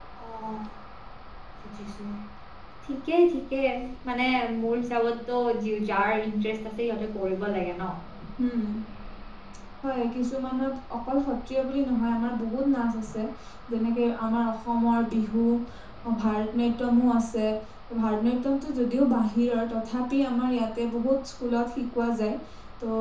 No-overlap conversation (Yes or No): Yes